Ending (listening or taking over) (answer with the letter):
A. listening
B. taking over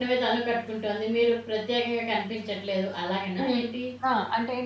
B